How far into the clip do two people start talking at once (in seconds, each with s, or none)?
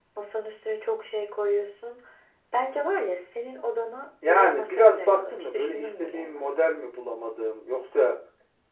4.2 s